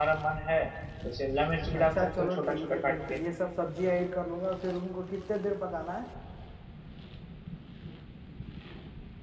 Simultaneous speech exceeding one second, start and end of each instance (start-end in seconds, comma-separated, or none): 1.8-3.2